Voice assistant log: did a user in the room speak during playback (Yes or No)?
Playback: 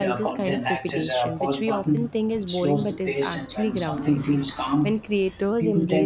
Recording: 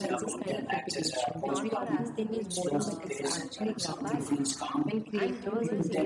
Yes